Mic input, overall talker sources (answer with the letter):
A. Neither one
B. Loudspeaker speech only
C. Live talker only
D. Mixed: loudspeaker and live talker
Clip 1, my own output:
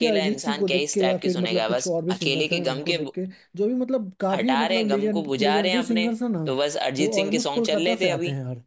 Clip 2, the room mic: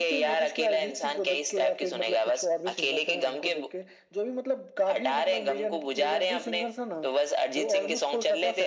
B